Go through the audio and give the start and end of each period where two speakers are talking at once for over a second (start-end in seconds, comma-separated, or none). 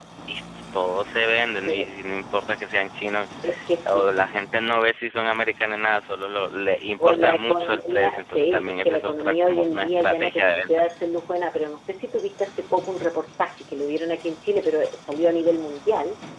7.0-10.7